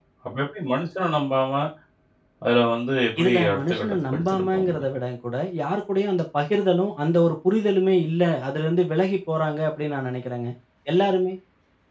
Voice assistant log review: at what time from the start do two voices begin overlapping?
3.2 s

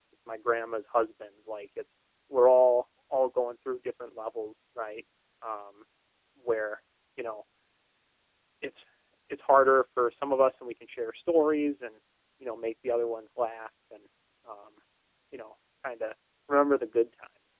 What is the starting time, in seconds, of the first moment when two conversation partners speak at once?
none

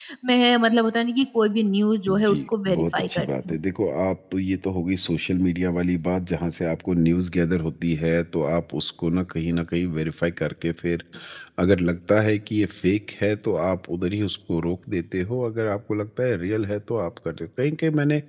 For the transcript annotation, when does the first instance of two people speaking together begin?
2.1 s

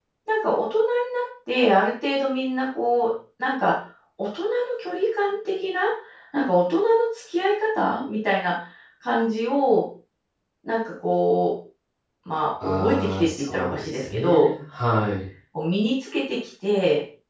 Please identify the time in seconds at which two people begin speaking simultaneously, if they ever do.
12.6 s

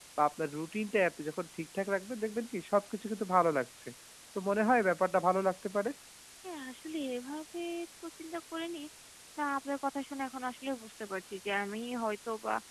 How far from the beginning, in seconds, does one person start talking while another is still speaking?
none

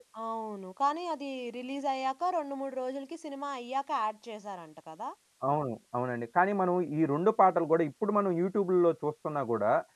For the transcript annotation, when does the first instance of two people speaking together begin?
none

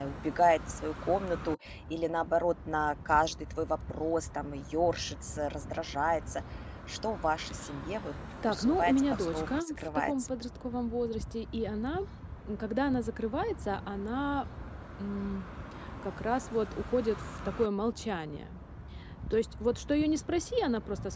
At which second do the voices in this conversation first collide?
8.4 s

